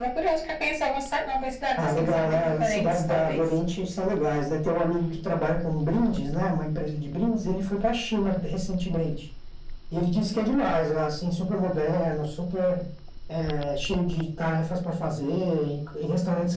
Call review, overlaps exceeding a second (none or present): present